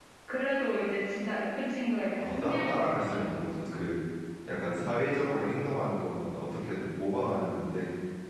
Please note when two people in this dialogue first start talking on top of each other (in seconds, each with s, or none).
2.2 s